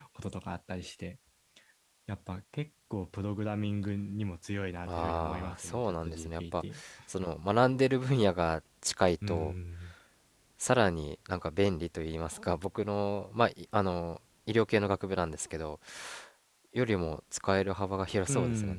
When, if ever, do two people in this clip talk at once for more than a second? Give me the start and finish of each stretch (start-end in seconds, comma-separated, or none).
4.9-6.6